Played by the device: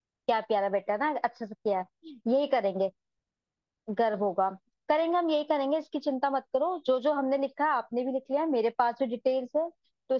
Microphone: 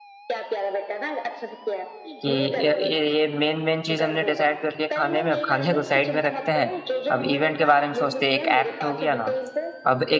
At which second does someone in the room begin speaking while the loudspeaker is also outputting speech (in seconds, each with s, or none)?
2.2 s